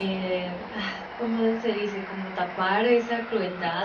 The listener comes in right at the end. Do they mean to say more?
No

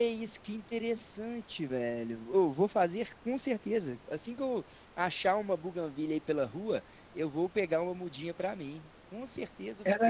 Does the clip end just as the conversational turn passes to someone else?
Yes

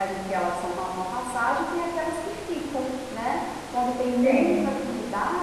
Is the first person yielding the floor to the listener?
No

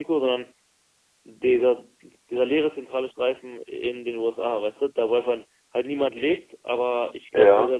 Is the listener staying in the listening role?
Yes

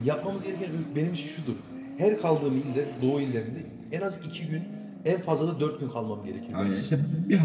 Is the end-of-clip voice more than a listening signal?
Yes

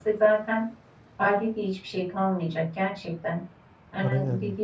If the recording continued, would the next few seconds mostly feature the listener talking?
No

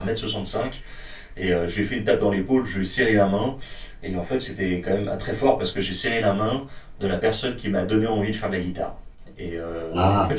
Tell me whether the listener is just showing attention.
Yes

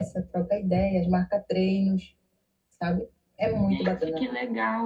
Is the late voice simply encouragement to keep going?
No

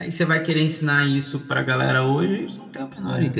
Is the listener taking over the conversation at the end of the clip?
Yes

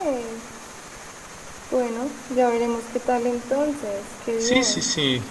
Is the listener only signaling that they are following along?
No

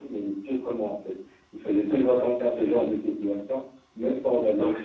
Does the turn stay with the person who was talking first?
No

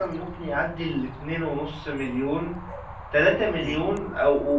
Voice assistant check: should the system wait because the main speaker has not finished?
Yes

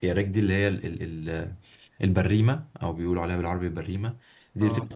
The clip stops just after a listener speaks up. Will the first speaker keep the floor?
Yes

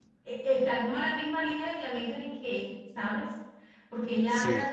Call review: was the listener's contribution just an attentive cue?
Yes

